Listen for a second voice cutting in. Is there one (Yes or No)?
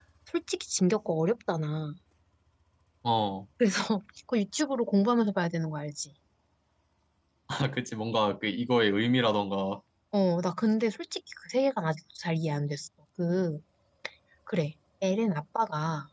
No